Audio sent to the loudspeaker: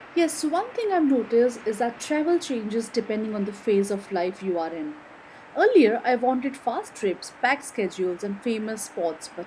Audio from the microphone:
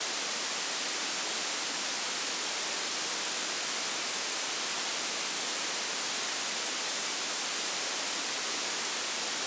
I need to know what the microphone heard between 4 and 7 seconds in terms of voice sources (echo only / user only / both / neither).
neither